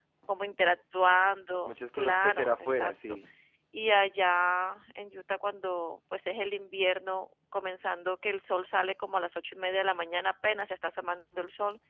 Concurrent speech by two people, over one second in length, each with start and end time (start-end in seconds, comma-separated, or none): 1.6-3.1